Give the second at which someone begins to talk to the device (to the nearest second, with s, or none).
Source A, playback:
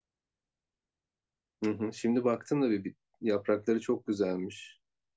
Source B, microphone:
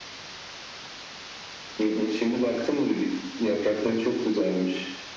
none